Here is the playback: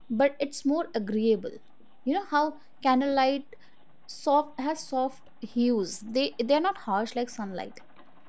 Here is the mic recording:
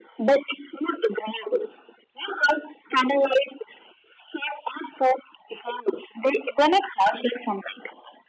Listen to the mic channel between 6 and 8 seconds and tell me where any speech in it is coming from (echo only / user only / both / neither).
echo only